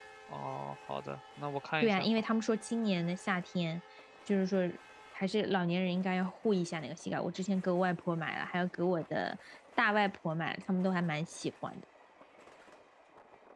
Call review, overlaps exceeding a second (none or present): none